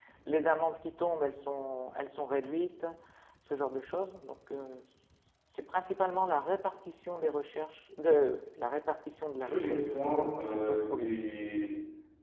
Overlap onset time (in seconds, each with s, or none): 9.4 s